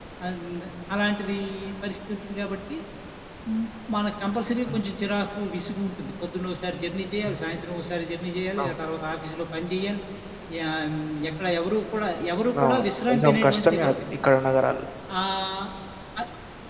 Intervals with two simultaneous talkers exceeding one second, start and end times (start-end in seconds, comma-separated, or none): 12.6-13.9